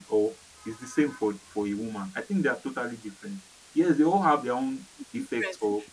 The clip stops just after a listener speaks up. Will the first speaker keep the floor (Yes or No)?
No